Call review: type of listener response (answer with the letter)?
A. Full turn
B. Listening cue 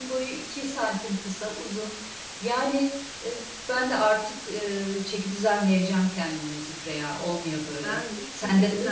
A